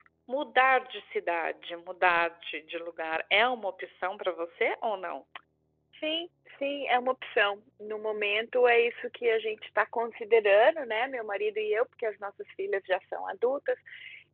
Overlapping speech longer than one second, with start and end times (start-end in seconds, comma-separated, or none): none